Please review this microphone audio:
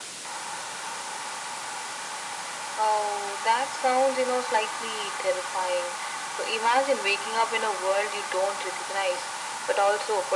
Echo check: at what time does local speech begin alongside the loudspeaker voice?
none

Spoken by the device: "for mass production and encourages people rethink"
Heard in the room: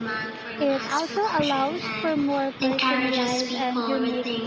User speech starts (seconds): 0.6 s

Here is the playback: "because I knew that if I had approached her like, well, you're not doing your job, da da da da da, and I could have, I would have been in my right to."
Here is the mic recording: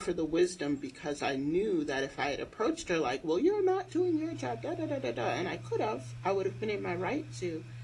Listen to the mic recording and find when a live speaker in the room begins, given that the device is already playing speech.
none

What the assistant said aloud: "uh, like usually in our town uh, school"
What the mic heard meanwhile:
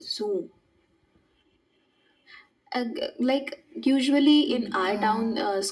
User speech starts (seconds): 4.5 s

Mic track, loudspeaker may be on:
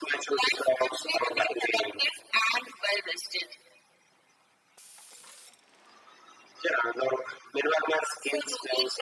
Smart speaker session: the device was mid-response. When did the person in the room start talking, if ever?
none

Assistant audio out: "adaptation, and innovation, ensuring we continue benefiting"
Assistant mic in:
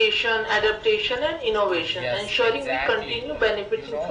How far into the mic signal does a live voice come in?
1.7 s

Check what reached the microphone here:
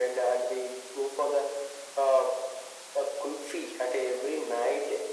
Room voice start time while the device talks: none

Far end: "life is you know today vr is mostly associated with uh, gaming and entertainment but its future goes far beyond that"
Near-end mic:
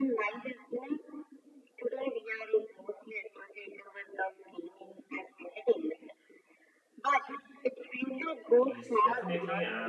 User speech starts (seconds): 8.7 s

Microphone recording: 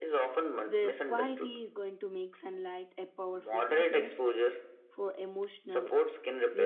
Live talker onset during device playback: 0.7 s

